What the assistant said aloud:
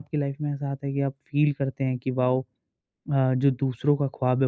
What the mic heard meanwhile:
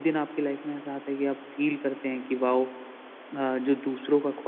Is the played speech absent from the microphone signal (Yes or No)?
No